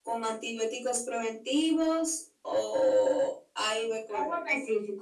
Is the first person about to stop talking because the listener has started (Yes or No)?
Yes